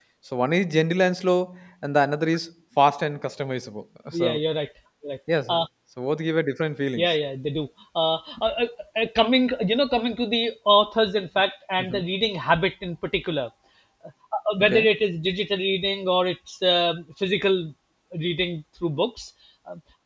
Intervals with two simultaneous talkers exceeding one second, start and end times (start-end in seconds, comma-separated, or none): none